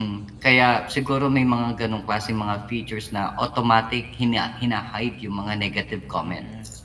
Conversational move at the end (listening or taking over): taking over